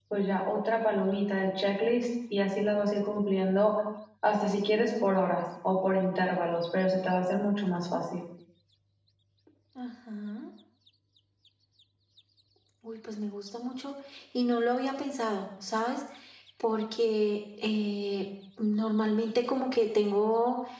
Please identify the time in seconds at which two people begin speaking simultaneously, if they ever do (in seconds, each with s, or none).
none